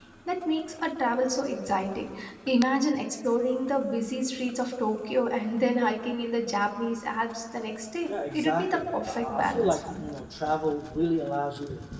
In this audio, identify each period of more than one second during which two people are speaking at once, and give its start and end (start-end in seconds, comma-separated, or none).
8.1-10.1